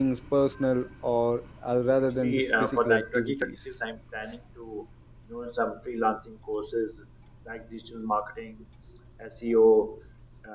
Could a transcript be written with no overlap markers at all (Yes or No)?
No